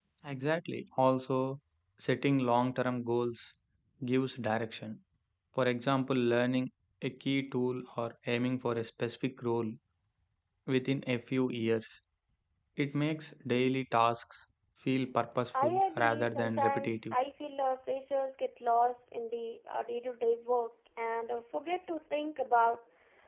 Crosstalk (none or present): present